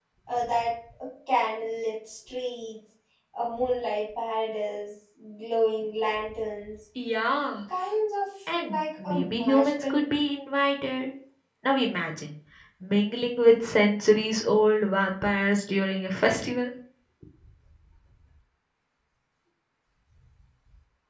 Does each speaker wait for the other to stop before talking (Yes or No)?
No